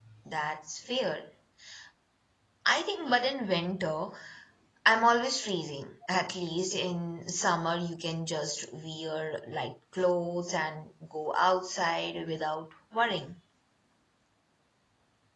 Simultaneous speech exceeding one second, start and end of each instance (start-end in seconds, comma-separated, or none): none